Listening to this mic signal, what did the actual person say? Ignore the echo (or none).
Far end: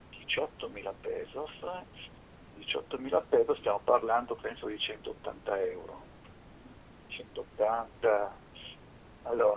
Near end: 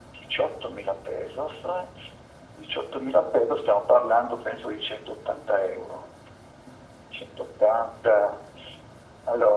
none